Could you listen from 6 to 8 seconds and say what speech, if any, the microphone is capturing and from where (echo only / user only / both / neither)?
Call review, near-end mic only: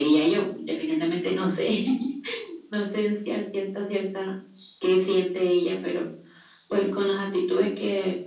echo only